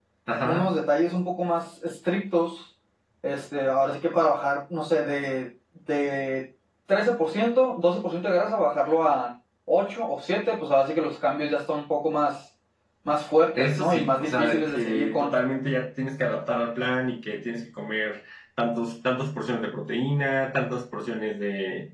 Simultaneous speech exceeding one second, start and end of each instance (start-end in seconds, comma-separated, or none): 13.6-15.3